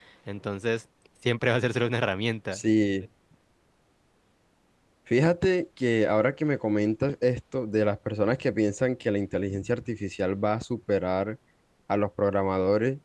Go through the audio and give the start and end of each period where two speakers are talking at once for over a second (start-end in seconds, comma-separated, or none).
none